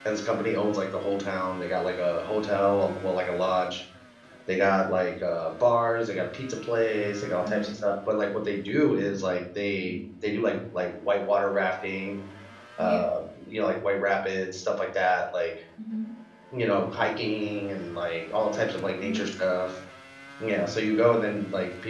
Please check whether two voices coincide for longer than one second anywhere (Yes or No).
No